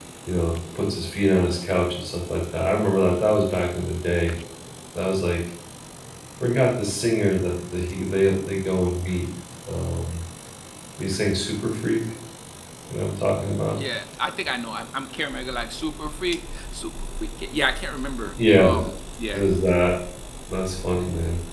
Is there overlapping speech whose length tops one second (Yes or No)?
No